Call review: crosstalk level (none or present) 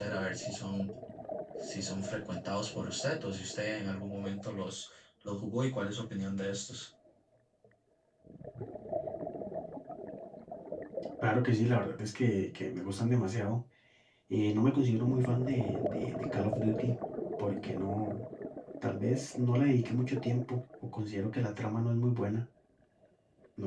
none